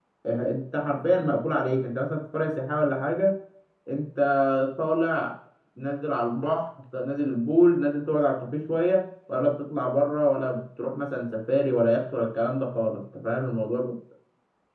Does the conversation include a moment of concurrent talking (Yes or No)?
No